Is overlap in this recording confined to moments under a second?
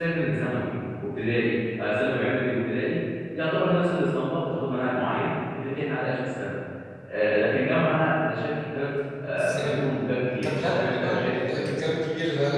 No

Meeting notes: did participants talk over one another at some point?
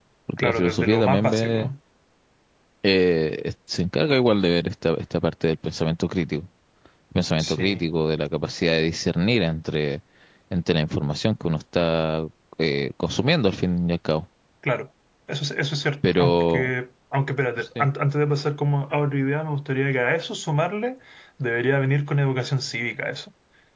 Yes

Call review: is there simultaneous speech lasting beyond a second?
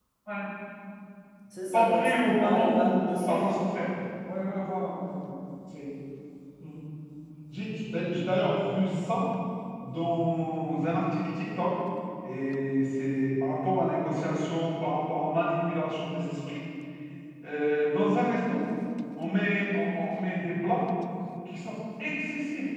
Yes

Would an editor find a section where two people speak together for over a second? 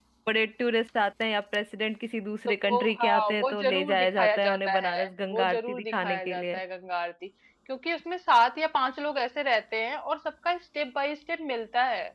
Yes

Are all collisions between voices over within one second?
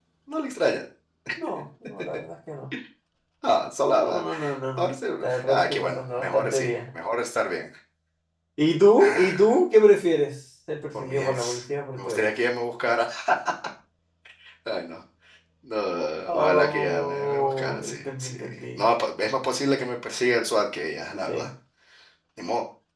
No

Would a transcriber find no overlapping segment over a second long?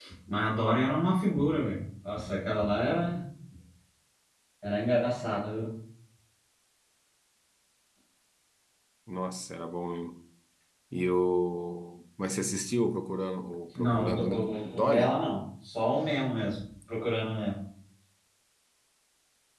No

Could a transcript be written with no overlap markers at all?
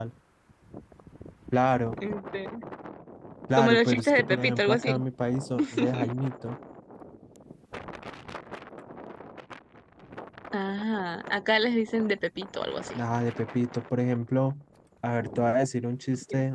No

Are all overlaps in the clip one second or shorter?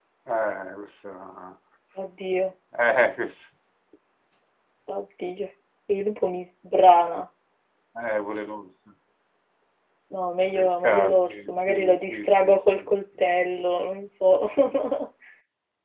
No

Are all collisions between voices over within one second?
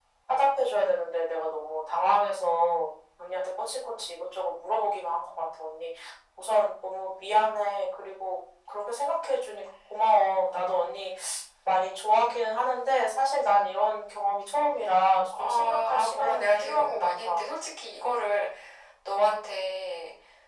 No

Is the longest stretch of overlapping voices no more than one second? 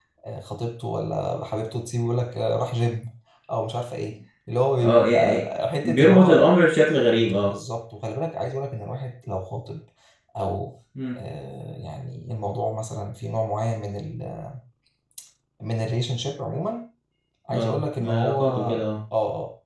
No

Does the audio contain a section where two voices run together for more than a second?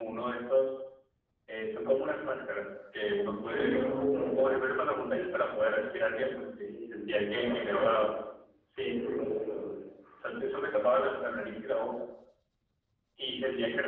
Yes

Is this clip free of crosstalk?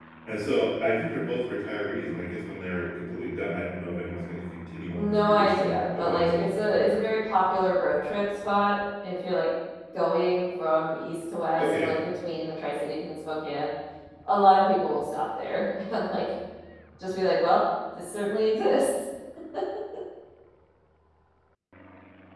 No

